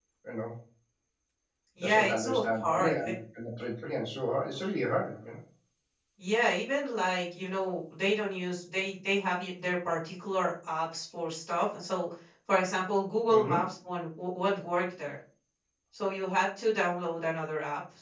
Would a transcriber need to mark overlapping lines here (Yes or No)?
Yes